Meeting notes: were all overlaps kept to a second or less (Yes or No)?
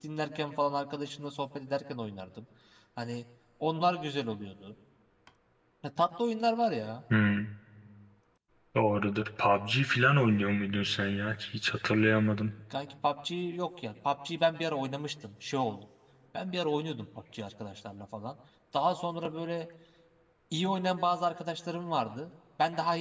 Yes